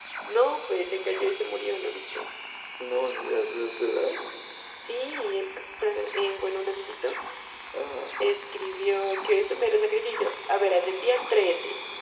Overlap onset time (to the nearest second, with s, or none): none